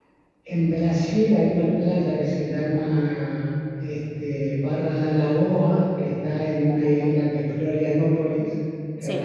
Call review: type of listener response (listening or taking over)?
listening